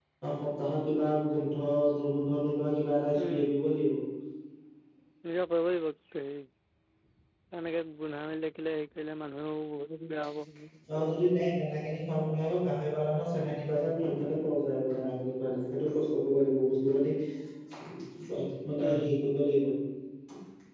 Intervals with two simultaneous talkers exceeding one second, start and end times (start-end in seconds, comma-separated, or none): none